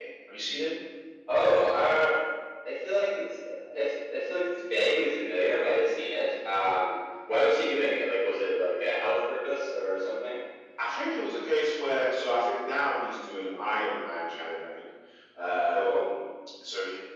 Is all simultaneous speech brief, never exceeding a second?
Yes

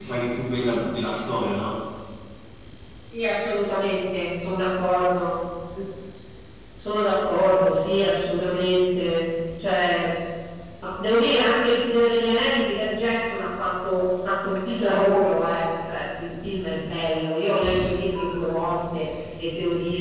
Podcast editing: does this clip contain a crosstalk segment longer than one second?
No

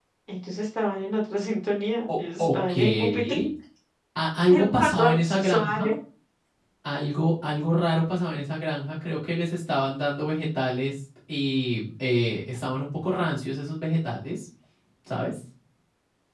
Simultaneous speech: Yes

